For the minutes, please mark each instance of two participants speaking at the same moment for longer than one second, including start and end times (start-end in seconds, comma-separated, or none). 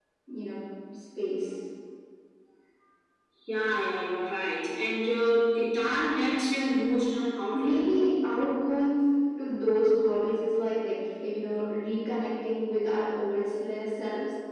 none